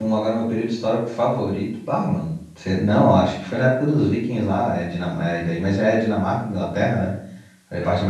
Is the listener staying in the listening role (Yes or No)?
Yes